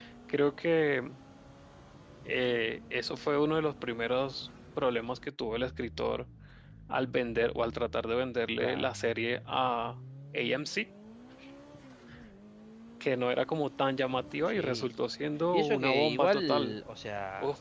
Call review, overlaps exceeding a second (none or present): present